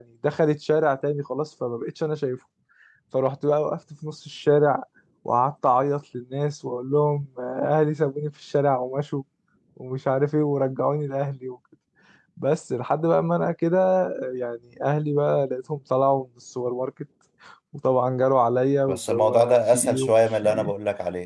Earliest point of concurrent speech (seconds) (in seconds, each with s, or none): 18.9 s